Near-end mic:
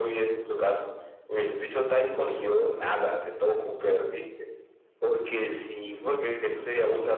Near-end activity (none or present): none